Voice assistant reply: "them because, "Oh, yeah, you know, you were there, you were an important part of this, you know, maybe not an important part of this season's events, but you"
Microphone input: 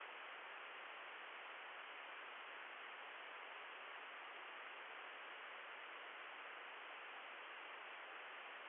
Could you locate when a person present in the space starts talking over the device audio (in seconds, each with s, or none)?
none